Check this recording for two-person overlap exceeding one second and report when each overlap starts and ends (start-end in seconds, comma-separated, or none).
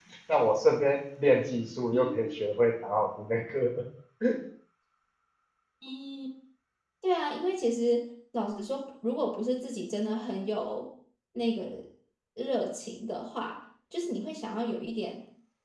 none